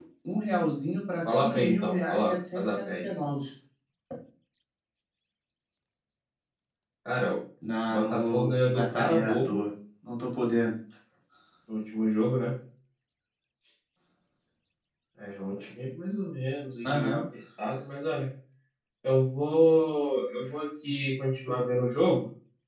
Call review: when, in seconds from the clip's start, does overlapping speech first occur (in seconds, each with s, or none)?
1.2 s